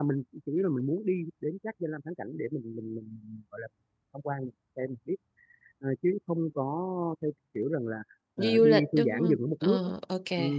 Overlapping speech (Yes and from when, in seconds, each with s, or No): Yes, from 8.4 s